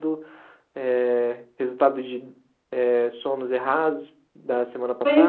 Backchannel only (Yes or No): No